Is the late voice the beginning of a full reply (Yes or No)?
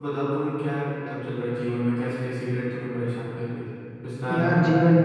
Yes